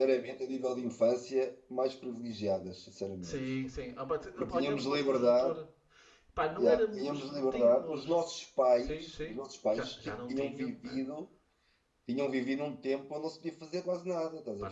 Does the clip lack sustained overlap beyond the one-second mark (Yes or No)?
No